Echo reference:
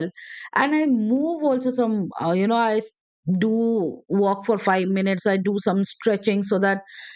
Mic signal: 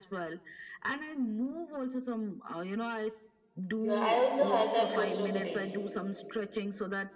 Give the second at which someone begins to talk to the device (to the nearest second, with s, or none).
4 s